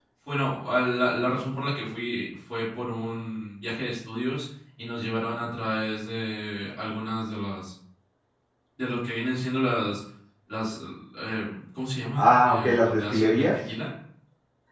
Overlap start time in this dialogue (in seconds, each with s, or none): 12.2 s